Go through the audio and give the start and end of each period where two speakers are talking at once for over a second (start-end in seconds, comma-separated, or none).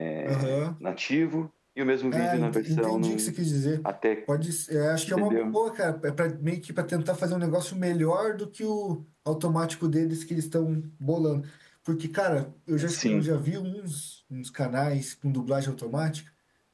2.1-3.3